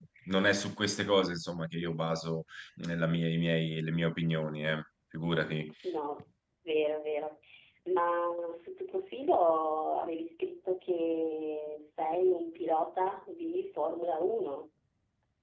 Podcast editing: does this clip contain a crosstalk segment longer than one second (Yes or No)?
No